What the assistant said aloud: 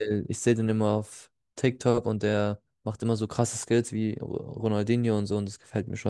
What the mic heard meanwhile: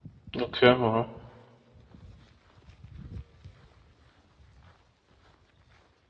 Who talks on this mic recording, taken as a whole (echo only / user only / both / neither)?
user only